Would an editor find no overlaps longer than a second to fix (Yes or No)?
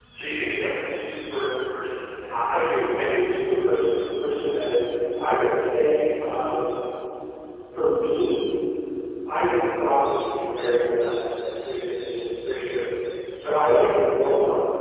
Yes